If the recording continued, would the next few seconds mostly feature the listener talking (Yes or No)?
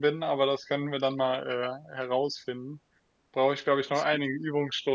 No